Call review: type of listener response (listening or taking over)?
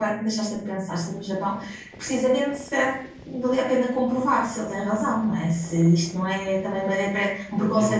taking over